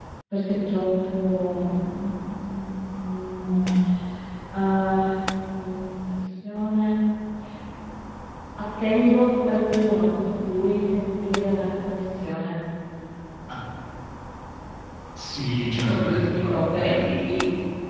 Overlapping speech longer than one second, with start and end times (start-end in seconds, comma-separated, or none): 15.9-17.2